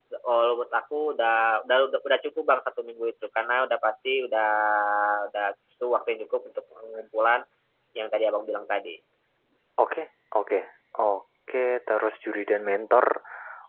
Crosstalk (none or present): none